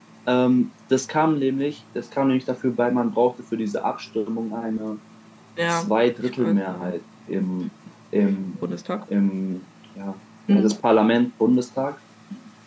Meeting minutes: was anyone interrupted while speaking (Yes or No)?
Yes